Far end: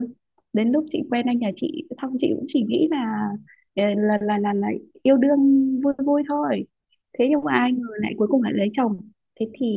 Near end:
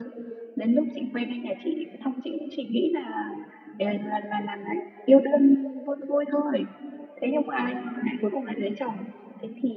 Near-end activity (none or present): none